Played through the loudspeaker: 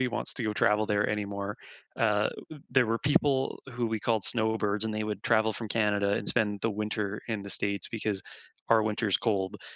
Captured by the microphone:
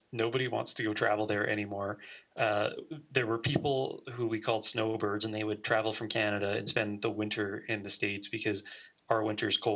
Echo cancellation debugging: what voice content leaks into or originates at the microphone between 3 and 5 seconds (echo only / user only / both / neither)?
echo only